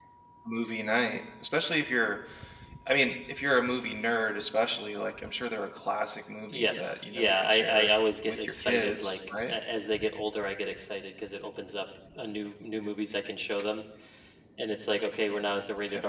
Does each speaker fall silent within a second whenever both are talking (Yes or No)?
No